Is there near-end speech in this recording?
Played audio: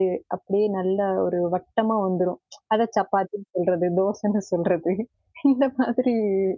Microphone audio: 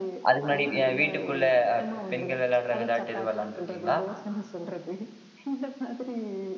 Yes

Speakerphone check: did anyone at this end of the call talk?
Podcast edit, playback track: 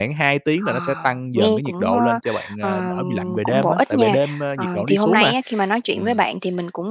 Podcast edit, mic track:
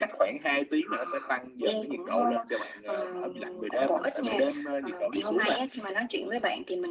No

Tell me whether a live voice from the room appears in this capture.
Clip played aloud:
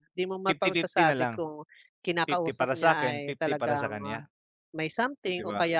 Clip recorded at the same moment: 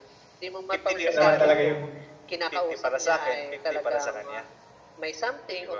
Yes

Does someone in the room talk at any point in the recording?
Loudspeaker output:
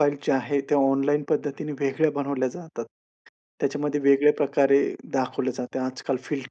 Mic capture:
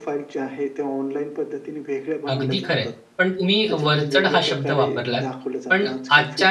Yes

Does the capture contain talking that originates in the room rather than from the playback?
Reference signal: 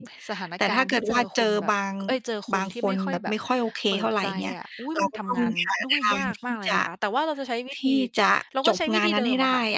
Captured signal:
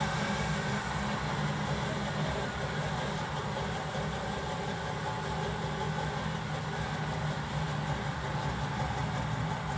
No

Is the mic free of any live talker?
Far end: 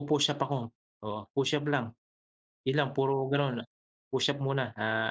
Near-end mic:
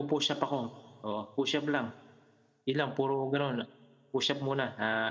Yes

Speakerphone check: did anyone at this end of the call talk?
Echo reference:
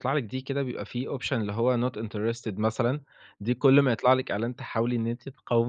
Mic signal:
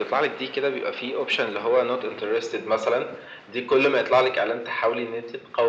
No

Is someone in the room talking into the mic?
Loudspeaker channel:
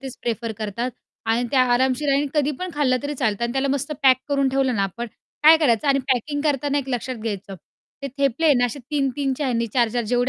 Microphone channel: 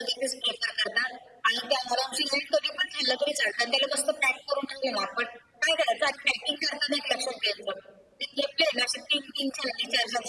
No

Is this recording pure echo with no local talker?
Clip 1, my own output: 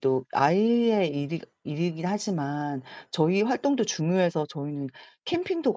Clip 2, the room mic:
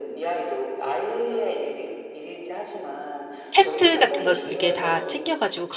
No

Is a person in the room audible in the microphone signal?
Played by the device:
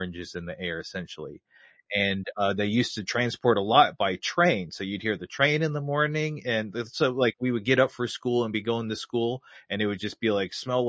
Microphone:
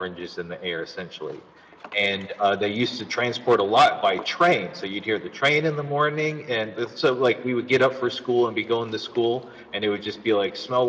No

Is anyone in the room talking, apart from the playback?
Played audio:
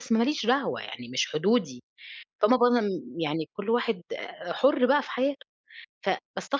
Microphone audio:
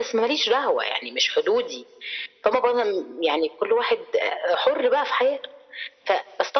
No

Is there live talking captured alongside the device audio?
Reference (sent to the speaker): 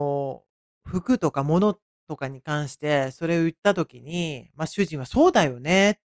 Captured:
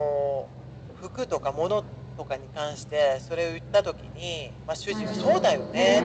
Yes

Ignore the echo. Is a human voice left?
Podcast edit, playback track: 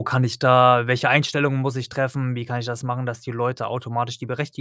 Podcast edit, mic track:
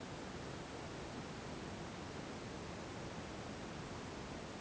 No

